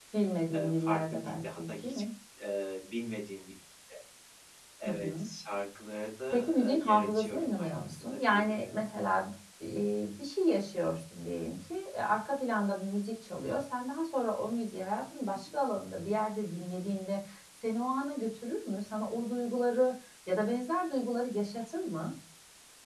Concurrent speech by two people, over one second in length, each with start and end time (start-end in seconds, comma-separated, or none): 0.5-2.0, 6.3-8.8